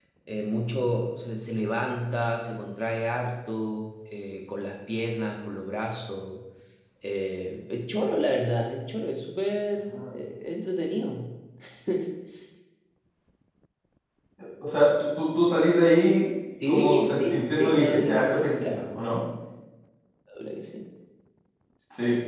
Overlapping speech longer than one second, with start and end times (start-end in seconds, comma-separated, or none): 16.7-18.8